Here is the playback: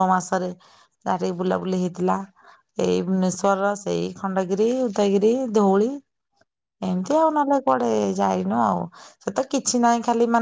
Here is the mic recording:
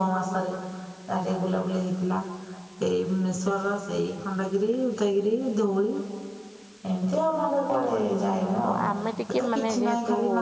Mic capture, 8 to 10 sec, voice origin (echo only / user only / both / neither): both